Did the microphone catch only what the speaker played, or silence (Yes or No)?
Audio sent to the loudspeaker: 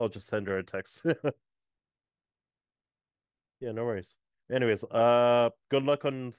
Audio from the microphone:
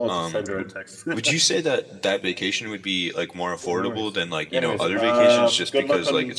No